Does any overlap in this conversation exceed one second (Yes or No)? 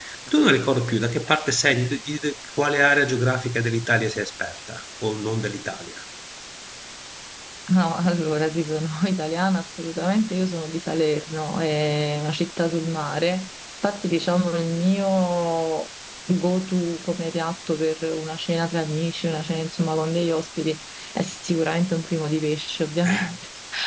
No